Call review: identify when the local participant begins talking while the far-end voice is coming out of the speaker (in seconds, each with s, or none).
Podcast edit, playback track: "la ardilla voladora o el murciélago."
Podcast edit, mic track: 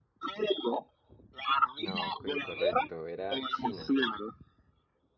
1.8 s